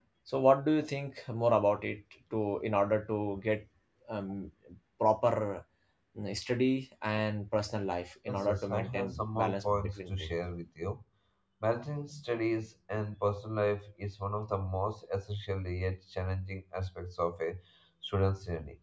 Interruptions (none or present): present